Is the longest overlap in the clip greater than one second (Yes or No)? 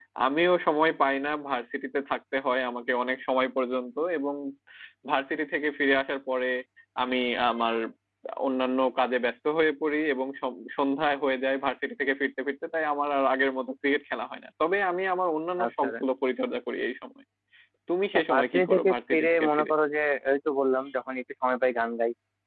Yes